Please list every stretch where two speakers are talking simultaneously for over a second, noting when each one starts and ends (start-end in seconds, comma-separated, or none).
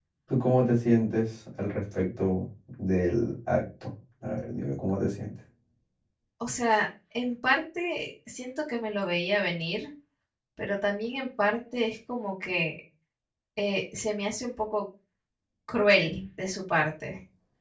none